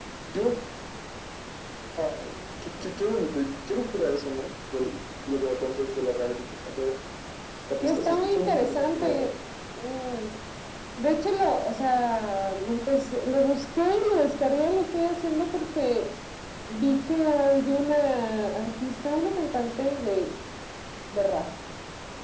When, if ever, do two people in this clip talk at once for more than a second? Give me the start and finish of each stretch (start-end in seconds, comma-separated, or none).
7.8-9.3